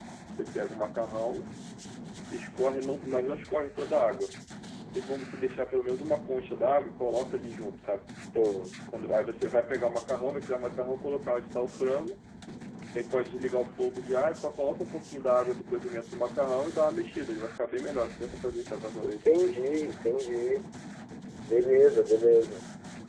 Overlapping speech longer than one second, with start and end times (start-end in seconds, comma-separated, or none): none